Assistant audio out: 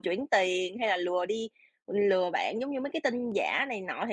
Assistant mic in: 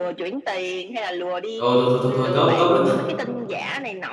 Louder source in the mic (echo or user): user